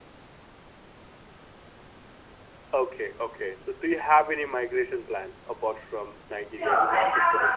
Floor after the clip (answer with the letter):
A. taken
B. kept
A